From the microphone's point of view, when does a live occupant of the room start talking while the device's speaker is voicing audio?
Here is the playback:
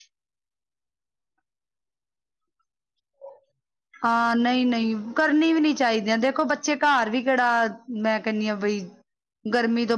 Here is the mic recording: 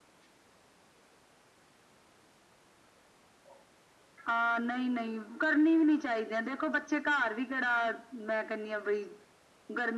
none

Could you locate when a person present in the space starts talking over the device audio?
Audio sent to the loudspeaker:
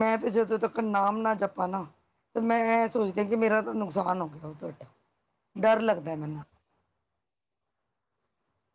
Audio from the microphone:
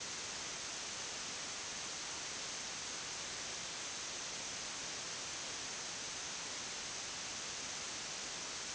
none

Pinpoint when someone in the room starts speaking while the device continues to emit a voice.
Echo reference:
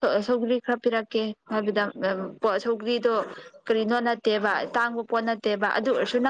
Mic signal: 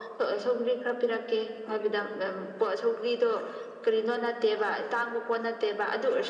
none

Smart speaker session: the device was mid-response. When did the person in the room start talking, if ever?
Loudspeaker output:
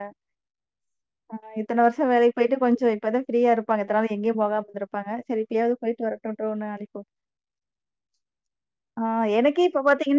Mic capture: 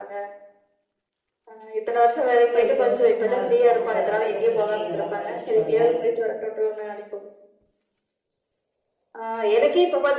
2.5 s

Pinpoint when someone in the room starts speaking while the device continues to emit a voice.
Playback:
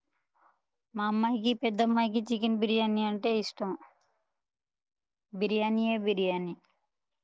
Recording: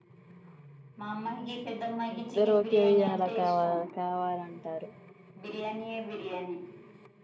2.2 s

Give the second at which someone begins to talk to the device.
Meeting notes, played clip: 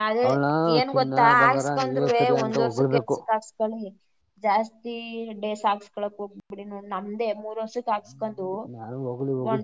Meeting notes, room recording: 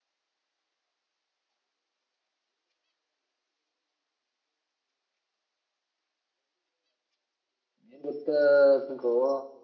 7.9 s

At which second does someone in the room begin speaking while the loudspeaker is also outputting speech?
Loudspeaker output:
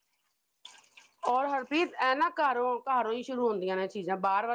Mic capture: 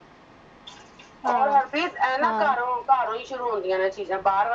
1.2 s

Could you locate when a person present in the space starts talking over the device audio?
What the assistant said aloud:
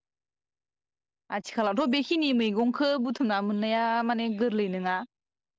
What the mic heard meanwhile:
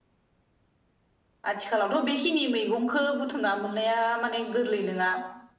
none

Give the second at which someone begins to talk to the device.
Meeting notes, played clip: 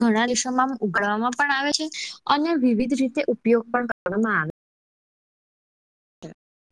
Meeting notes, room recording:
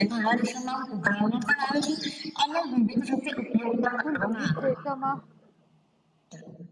3.8 s

